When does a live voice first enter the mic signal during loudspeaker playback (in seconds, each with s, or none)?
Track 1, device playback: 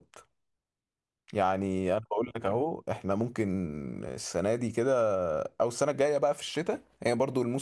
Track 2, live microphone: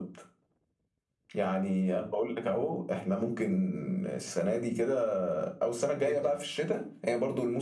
6.0 s